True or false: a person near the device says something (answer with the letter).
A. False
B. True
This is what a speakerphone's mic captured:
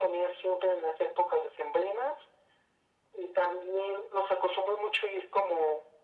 A